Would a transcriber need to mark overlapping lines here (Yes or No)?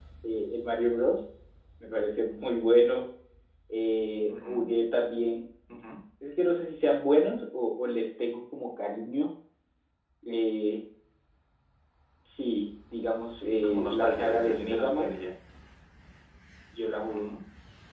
Yes